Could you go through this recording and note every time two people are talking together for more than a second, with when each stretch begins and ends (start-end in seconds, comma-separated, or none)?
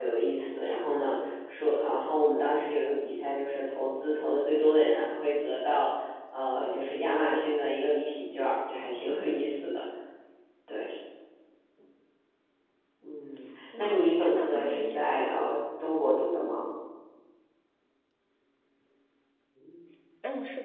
13.8-15.3